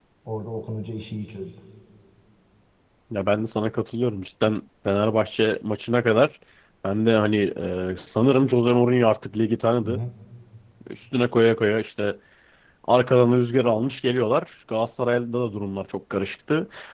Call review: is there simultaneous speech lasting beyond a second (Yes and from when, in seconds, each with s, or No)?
No